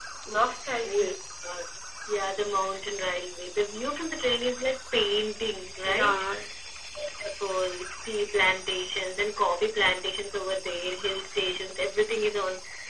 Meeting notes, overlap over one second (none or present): none